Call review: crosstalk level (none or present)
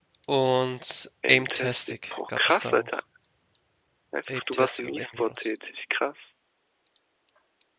present